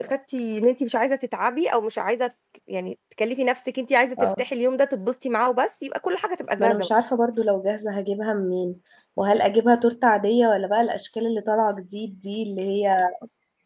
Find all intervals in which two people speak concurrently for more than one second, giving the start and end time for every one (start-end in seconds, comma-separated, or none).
none